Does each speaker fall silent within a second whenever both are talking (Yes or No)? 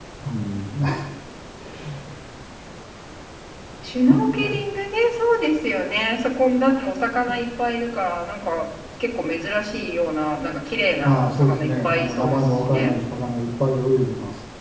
No